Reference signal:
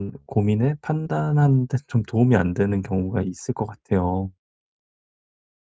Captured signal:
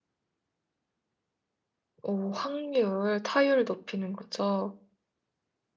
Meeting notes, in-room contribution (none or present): present